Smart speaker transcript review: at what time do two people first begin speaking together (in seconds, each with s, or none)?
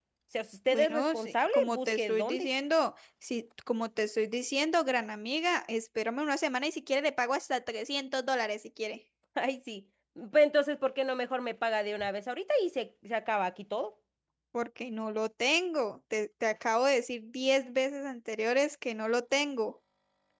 0.7 s